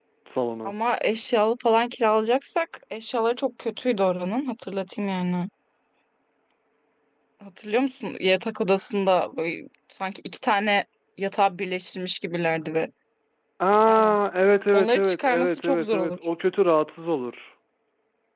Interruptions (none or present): present